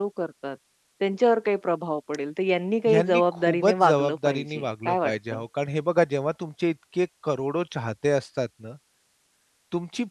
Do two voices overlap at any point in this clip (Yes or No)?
Yes